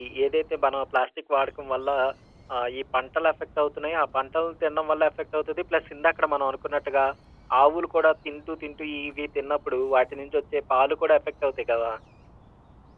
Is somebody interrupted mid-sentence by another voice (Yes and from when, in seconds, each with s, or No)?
No